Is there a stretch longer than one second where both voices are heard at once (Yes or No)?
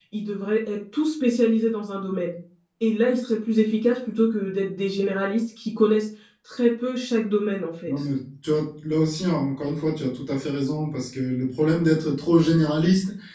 No